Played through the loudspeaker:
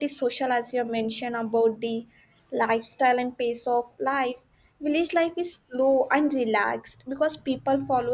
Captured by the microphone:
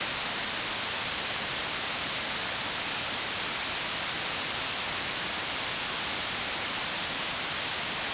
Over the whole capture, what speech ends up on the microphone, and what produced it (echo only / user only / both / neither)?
neither